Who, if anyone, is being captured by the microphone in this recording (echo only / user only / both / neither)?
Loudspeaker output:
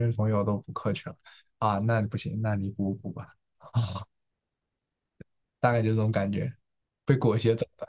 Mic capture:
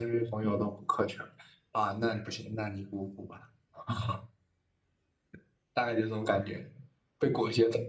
echo only